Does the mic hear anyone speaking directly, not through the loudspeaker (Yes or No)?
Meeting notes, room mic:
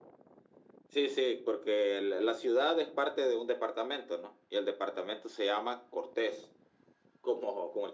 No